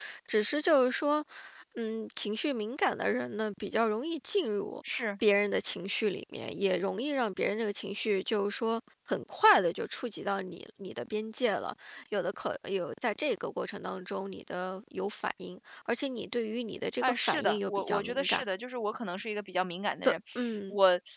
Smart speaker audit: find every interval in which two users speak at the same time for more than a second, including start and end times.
17.0-18.4

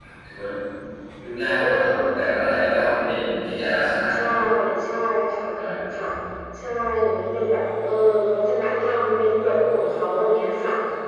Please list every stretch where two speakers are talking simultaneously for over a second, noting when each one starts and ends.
none

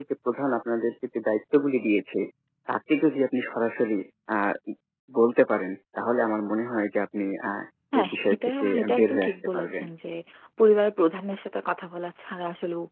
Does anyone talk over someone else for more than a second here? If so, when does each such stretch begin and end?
8.0-9.8

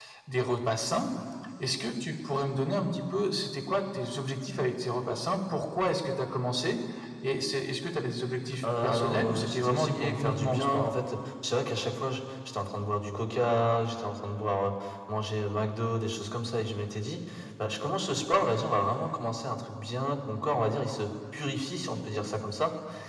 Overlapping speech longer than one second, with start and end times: 8.6-10.8

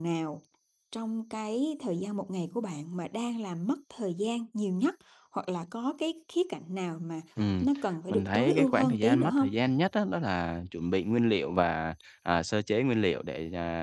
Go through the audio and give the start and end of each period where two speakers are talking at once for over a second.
8.1-9.5

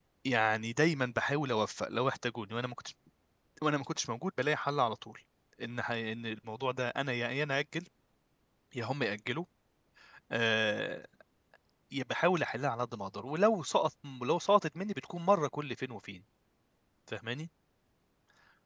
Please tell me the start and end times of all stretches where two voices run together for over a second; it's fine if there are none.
none

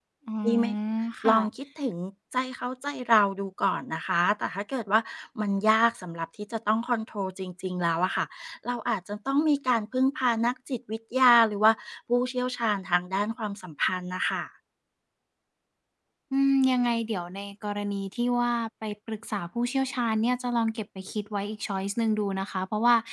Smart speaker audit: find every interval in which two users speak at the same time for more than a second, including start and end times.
none

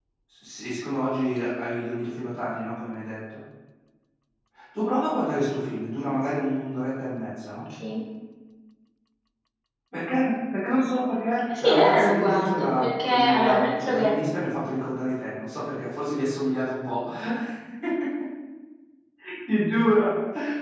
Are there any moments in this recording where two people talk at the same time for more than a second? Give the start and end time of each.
11.5-14.1

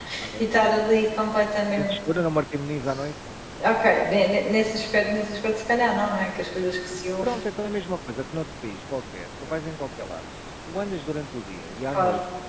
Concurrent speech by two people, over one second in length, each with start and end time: none

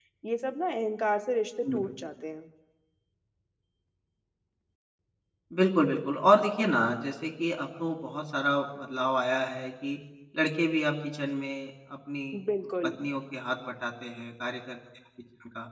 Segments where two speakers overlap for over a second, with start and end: none

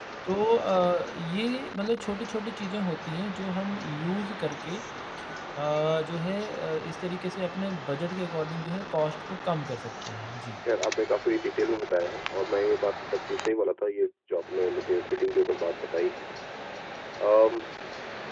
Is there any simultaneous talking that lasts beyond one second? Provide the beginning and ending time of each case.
none

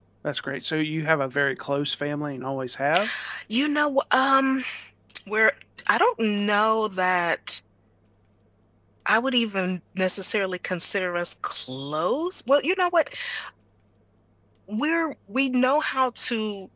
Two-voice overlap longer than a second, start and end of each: none

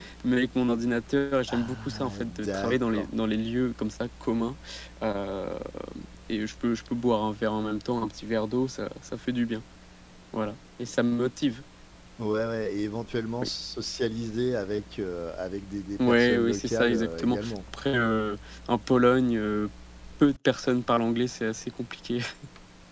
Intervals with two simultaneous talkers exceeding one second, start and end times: 1.5-3.1, 16.0-17.6

